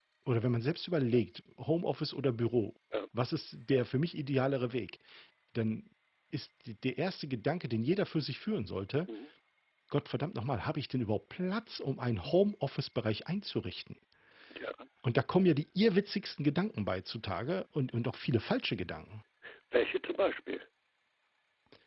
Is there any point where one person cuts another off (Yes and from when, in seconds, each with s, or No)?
No